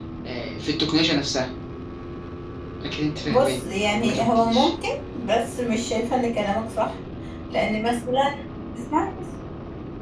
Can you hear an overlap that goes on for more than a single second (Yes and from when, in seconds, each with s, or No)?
Yes, from 3.2 s